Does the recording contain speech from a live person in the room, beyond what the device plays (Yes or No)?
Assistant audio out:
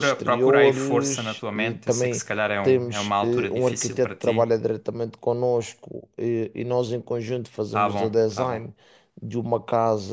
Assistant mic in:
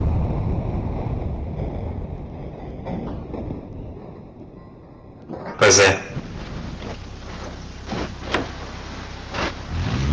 Yes